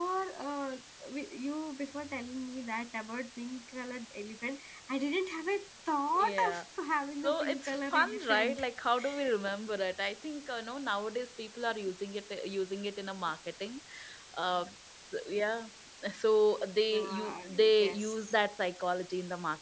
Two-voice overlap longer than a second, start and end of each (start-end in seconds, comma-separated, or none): 7.2-8.6, 16.9-18.3